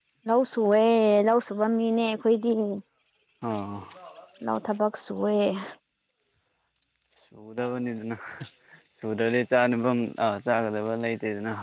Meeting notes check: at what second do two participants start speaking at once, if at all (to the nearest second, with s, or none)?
none